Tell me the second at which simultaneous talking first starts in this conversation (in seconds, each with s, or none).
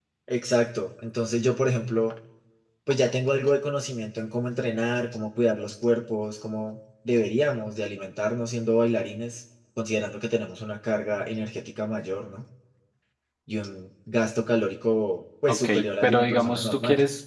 15.5 s